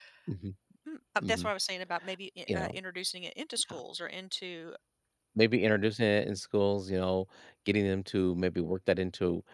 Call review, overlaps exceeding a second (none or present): none